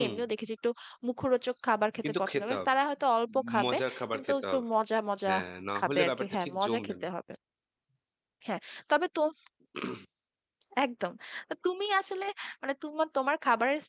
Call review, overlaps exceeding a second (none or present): present